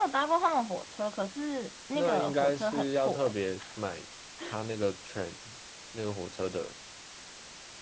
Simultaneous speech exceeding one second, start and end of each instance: 1.9-3.3

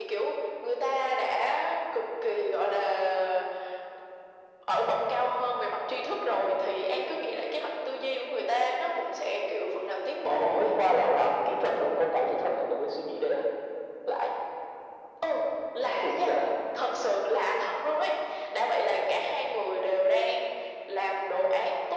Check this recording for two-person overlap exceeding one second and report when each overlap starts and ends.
none

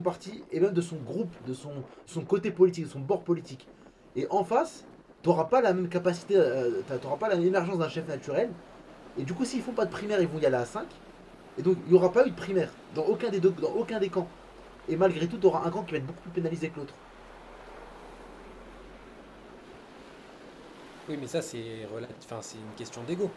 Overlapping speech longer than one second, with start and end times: none

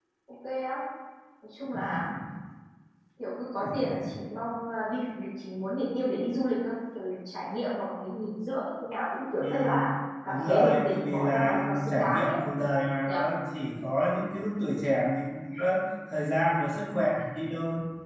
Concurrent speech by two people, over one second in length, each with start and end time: 10.3-12.3

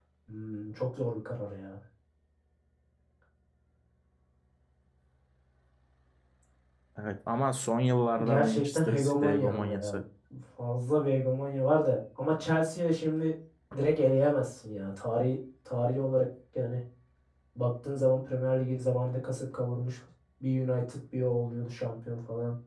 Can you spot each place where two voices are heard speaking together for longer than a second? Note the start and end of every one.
8.2-9.9

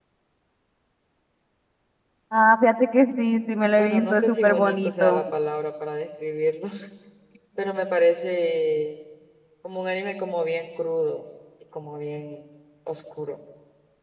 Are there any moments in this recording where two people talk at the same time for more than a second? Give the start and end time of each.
3.8-5.2

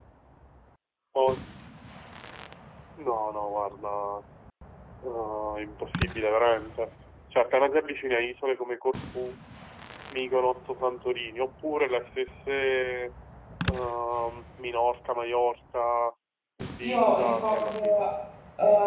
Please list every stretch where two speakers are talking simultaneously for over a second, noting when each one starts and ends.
16.8-18.1

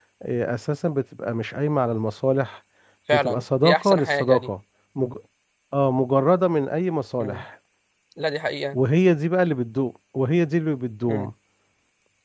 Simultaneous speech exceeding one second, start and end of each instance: 3.1-4.5

